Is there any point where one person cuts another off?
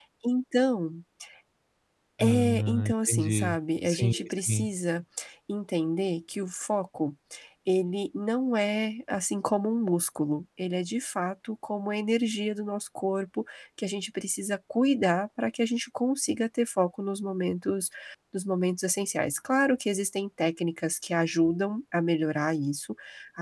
Yes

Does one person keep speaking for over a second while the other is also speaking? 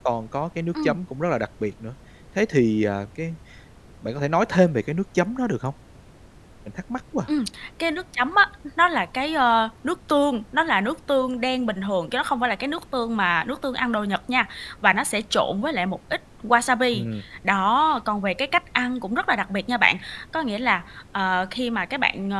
No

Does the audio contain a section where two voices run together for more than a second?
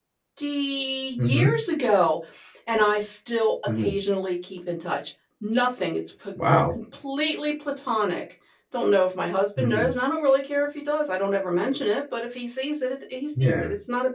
No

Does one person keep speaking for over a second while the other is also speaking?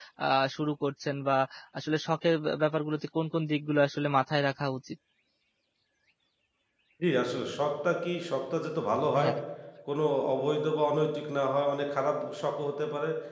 No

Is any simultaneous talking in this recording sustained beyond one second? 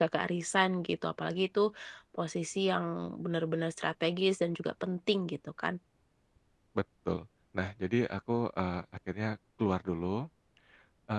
No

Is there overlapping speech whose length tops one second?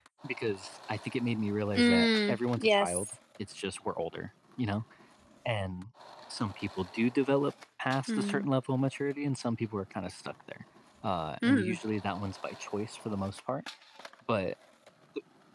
Yes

